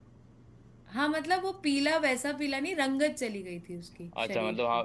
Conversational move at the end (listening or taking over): taking over